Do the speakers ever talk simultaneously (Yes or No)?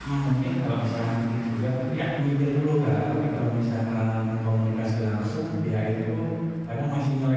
No